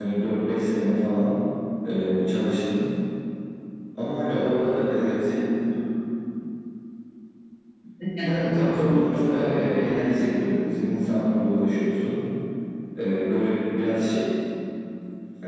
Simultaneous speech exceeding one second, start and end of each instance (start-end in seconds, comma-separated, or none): 8.2-10.1